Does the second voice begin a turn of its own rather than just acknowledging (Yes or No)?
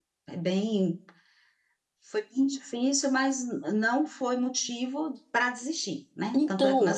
Yes